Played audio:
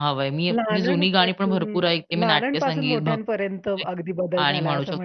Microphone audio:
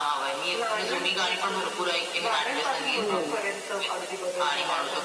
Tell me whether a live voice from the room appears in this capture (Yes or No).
Yes